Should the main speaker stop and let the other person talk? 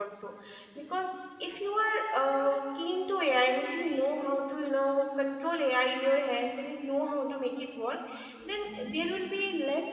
No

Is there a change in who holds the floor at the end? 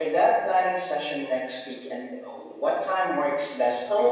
Yes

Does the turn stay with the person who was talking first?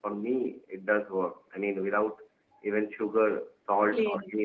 Yes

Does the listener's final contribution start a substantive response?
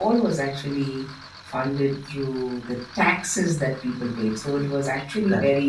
No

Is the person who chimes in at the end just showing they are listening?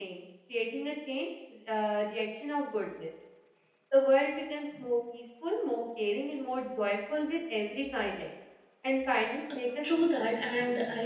No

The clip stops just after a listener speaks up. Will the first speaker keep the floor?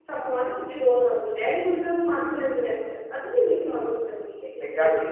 No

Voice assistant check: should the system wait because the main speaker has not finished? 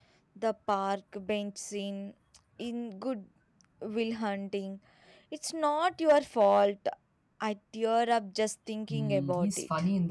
No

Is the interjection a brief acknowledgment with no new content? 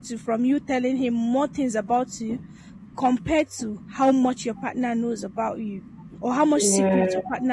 Yes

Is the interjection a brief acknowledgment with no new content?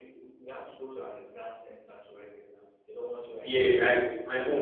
No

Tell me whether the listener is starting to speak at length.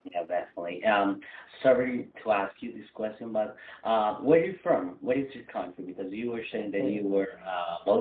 No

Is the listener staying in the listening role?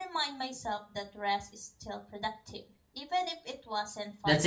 No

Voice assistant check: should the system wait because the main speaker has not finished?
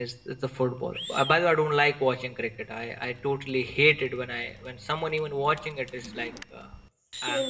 Yes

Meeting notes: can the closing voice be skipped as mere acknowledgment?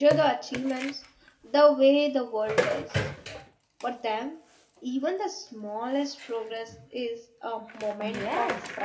No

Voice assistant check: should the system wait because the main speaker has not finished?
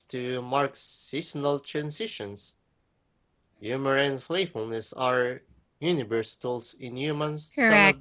No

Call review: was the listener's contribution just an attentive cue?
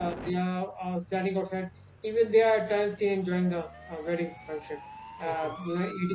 Yes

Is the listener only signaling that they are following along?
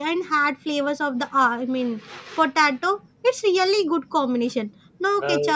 Yes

